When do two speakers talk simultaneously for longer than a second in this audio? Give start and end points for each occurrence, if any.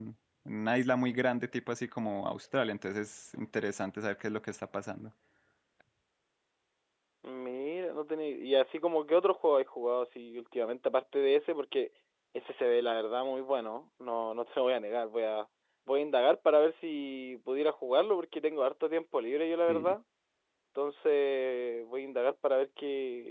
none

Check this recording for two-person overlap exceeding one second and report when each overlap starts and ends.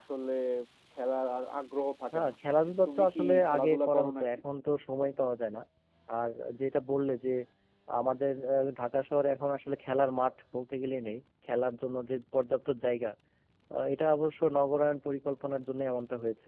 2.9-4.2

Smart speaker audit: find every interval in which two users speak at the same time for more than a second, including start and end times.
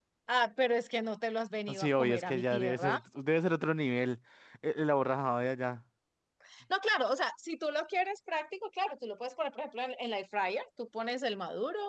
1.7-3.0

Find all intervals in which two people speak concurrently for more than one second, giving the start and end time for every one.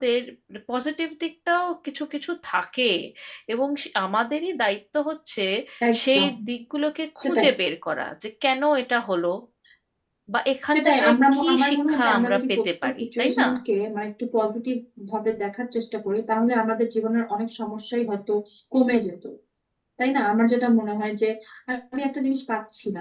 10.7-13.5

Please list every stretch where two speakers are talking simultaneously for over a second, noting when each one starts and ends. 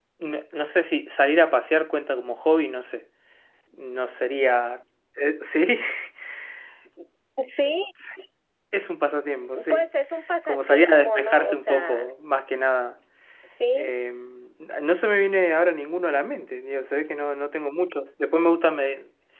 10.4-12.1

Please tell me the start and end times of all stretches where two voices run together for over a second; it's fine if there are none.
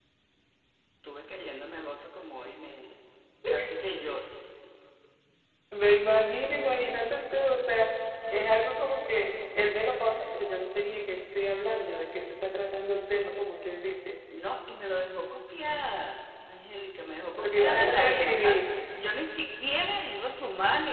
17.3-18.6

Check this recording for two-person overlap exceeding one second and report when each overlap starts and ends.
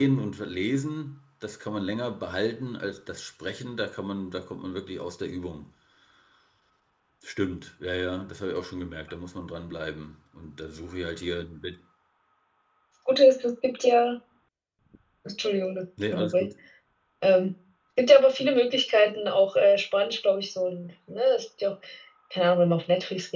none

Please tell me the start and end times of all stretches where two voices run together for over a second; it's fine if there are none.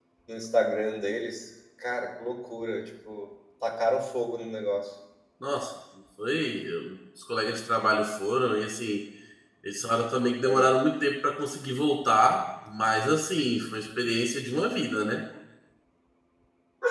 none

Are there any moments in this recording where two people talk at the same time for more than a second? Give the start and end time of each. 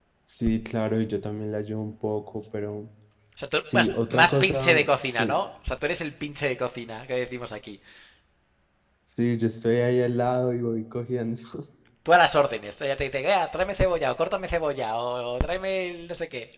3.7-5.4

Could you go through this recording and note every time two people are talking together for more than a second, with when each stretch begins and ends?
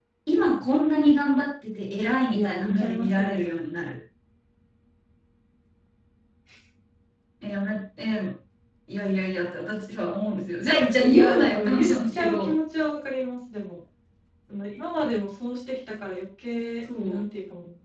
2.3-3.9, 11.0-12.6

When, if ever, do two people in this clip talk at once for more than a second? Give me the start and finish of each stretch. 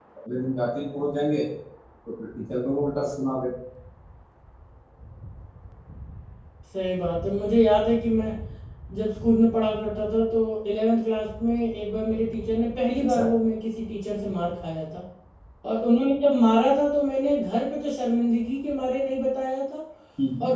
none

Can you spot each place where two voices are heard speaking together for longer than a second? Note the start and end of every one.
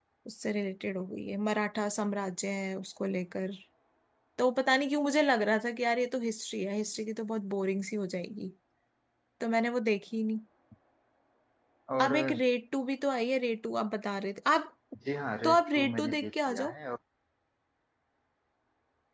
15.4-16.7

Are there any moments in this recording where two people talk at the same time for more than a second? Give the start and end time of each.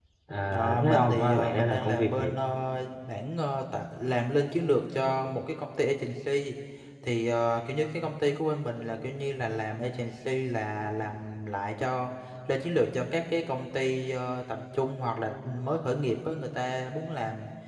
0.5-2.3

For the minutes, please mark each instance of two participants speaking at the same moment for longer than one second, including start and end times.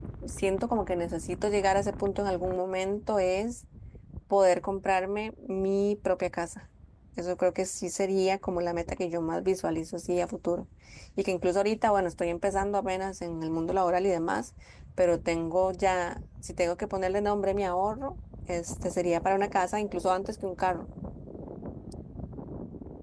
none

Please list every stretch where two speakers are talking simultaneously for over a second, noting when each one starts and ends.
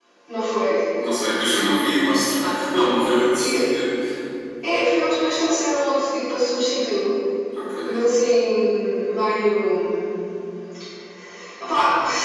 none

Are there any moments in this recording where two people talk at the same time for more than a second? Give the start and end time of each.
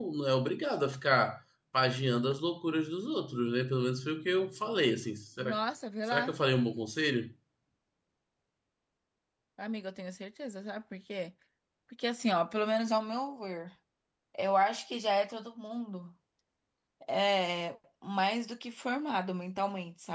none

